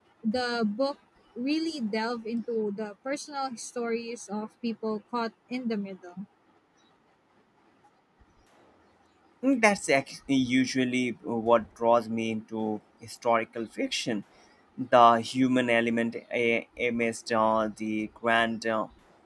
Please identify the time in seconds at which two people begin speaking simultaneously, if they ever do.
none

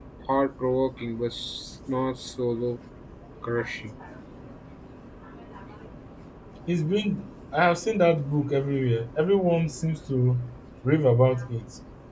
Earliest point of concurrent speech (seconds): none

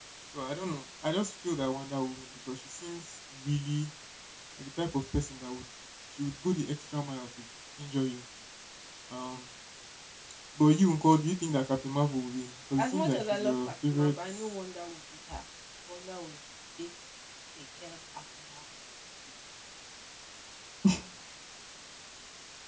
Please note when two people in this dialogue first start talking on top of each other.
12.8 s

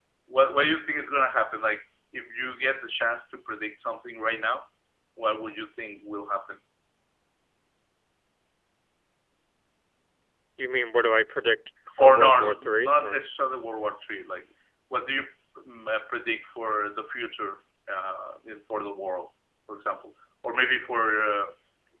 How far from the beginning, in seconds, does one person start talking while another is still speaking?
12.0 s

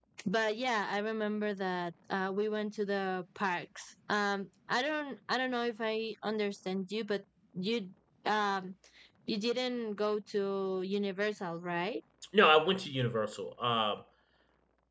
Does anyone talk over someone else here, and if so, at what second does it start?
none

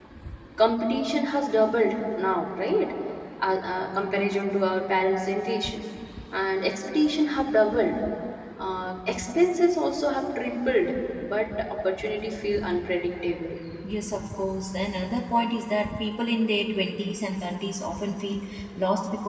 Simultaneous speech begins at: none

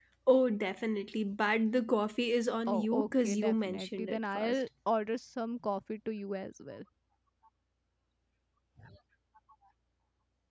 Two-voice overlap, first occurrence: 2.7 s

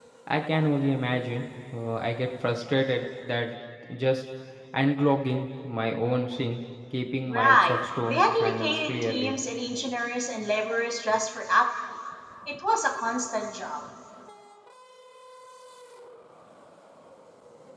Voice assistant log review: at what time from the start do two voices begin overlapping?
7.3 s

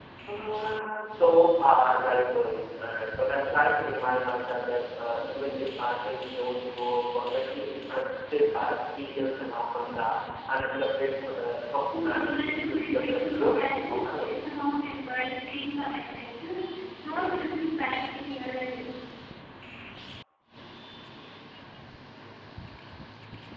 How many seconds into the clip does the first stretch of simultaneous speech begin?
11.9 s

